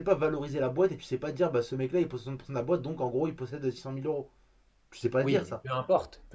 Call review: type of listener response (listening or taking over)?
taking over